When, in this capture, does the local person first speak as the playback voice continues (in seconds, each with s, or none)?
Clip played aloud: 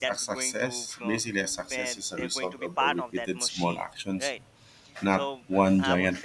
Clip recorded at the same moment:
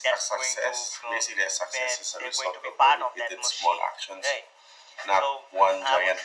none